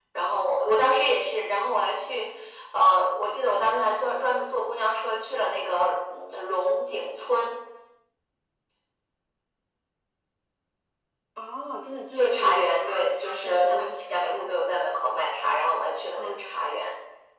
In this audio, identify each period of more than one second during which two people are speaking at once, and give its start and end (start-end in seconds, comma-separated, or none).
12.1-14.6